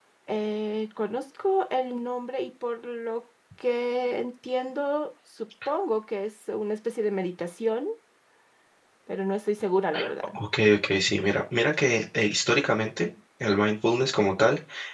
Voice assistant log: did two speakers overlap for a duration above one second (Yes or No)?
No